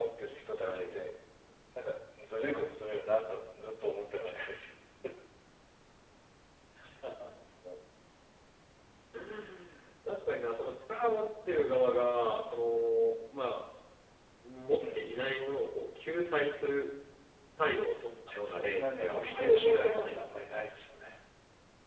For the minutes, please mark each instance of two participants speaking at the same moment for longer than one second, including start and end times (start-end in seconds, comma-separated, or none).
18.4-20.4